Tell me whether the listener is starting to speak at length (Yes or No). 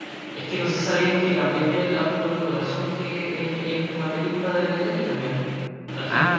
Yes